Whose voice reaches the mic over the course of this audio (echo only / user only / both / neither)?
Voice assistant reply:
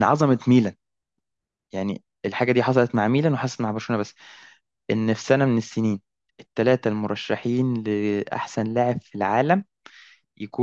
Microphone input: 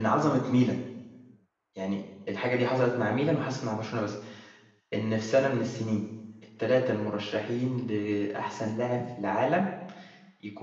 echo only